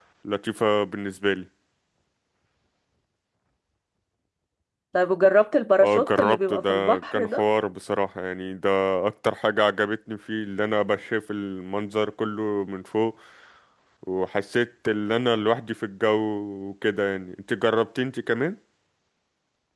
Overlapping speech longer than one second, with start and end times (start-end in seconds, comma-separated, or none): 5.8-7.4